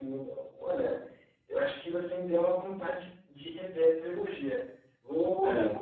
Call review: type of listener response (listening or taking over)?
listening